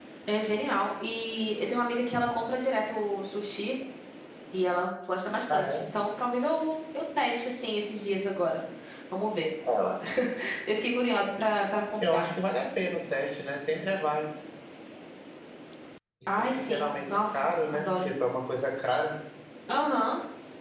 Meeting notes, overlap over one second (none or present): present